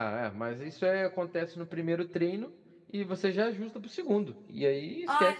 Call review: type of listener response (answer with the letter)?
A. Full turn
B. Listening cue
A